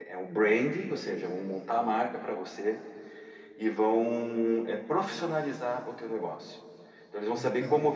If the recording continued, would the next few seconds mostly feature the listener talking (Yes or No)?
No